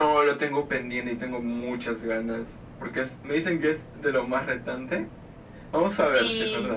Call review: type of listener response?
taking over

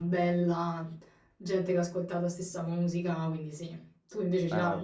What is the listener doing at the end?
taking over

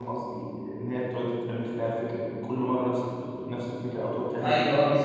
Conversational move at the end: taking over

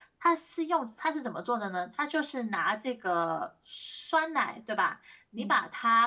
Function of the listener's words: listening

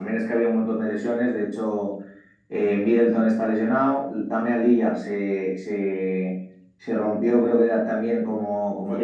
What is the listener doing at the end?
taking over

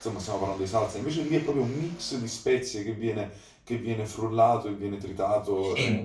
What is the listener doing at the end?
listening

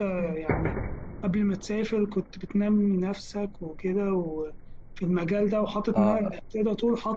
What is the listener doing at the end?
listening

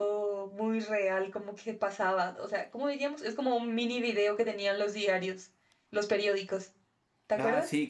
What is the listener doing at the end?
taking over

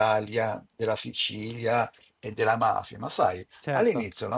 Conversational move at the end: listening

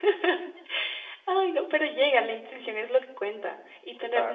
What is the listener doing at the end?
listening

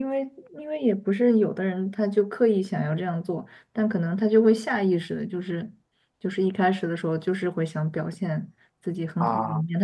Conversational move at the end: listening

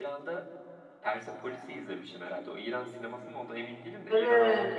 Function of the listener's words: taking over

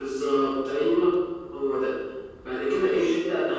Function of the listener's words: listening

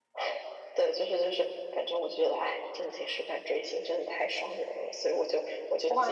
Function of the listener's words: taking over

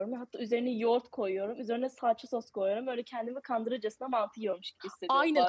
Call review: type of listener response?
taking over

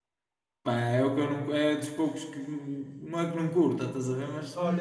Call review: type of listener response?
taking over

